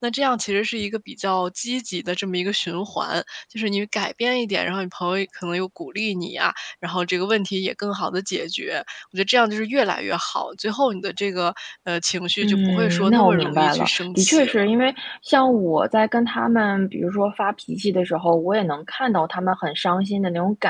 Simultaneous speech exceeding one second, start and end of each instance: 12.4-14.7

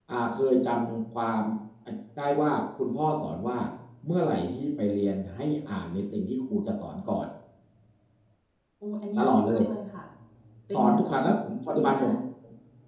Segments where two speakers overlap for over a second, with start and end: 10.7-12.2

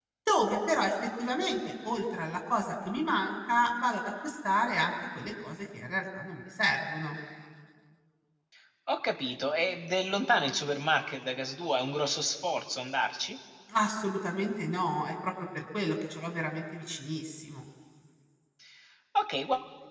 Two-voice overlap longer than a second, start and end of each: none

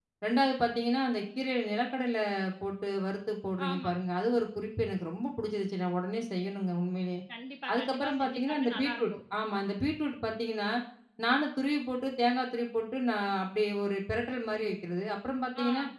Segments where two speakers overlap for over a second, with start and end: 7.7-9.2

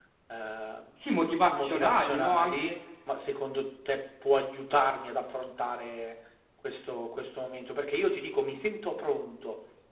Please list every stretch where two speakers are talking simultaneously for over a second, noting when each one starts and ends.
1.5-2.7

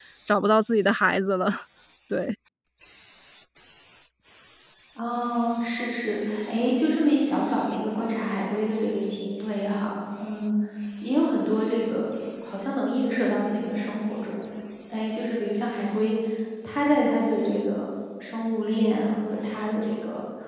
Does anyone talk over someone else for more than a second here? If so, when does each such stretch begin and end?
none

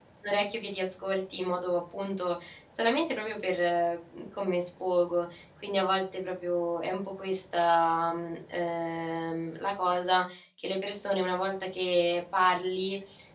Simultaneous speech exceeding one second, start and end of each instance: none

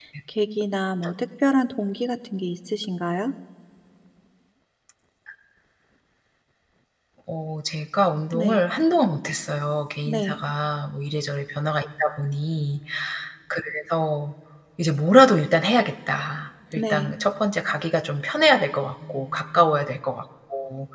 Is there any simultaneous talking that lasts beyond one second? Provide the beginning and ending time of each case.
none

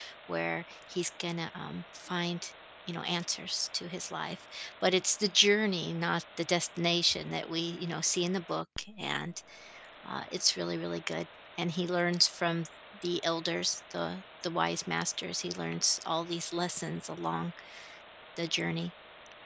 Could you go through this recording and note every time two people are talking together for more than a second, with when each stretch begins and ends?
none

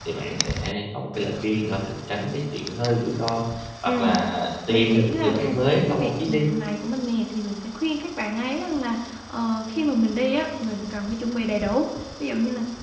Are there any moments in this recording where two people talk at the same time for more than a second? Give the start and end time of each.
4.7-6.4

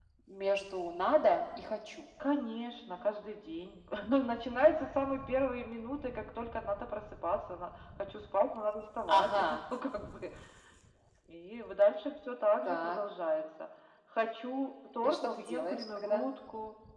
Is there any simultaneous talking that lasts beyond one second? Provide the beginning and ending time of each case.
15.0-16.3

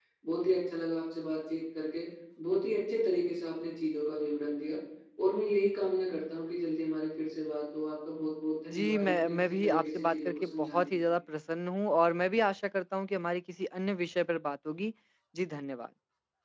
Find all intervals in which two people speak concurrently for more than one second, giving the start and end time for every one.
8.7-11.2

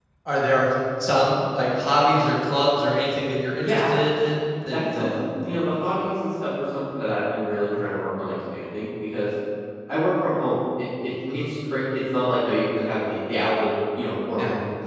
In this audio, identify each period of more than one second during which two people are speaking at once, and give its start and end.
none

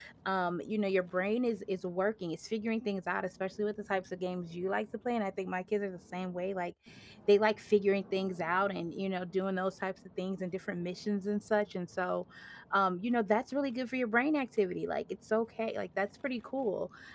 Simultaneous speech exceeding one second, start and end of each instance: none

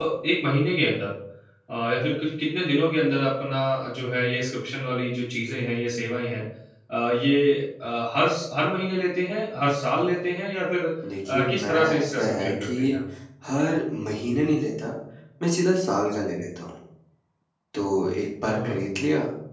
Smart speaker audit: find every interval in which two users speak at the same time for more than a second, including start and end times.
11.3-13.0

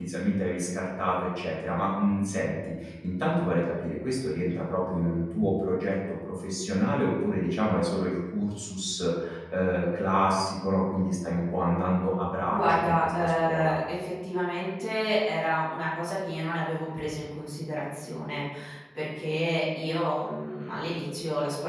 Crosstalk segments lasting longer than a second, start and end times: 12.5-13.8

